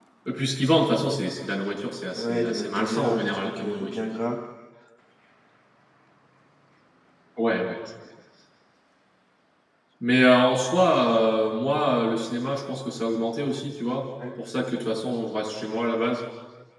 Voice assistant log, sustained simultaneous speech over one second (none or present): present